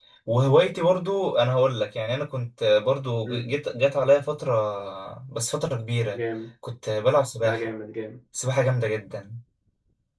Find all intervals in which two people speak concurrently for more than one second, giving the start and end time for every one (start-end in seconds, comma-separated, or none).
none